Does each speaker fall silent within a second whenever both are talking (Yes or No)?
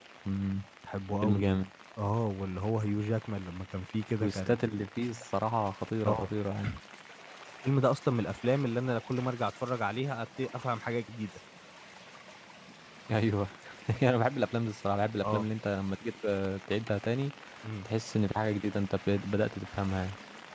Yes